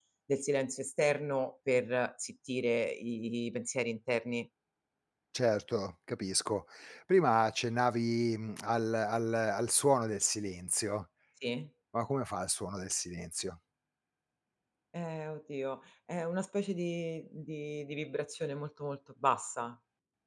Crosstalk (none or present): none